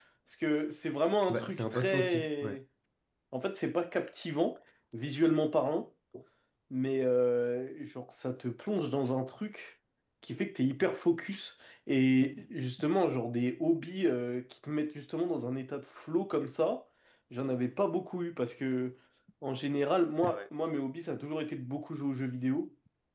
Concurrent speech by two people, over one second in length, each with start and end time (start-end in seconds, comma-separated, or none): 1.3-2.6